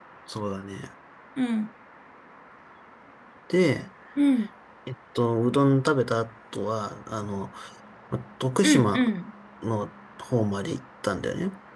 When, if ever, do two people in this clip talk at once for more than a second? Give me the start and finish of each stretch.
none

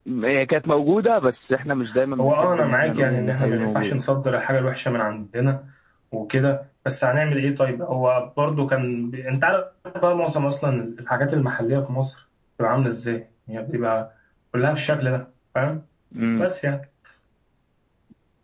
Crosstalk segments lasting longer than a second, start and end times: 2.2-4.0

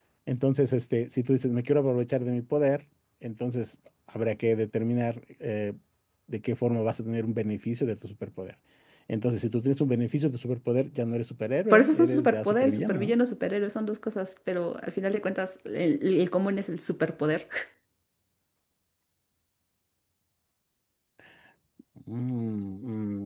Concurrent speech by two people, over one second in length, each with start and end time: 11.7-13.1

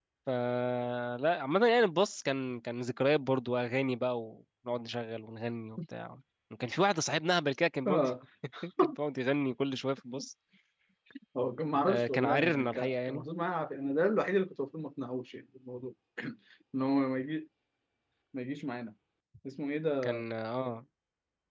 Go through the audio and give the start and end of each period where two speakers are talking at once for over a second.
11.9-13.2

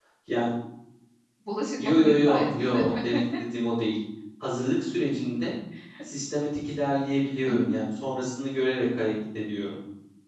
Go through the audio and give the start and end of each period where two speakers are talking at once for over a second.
1.8-3.0

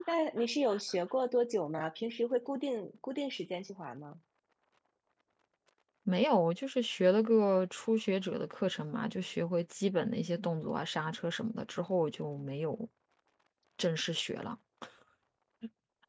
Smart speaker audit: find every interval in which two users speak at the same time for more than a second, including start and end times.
none

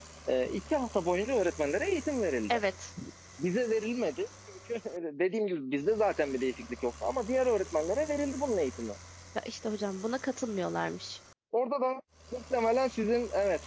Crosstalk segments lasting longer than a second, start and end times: none

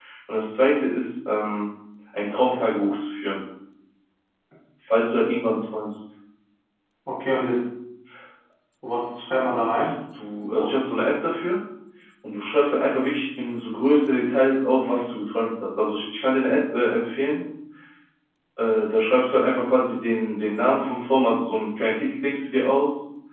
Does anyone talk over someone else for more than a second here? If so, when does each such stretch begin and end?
none

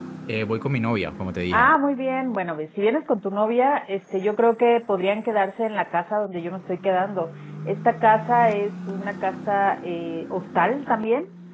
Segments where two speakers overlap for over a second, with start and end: none

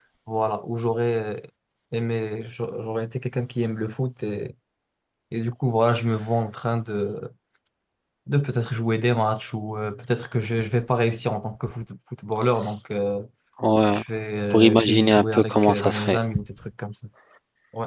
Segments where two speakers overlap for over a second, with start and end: 14.5-16.2

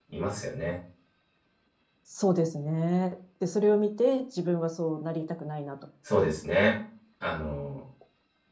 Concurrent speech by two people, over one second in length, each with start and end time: none

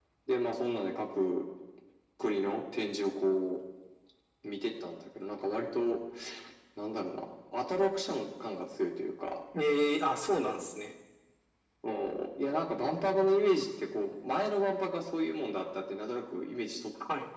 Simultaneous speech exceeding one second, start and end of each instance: none

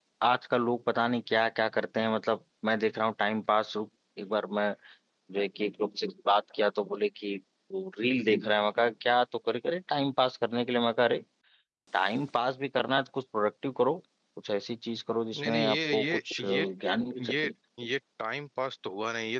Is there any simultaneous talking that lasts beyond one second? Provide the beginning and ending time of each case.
15.4-16.7

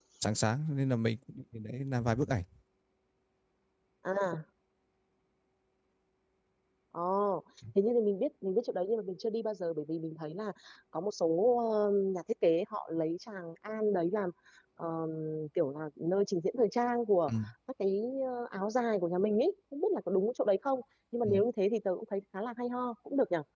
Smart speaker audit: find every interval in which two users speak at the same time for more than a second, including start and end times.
none

